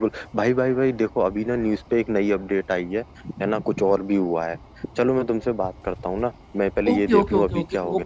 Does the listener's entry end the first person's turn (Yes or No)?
Yes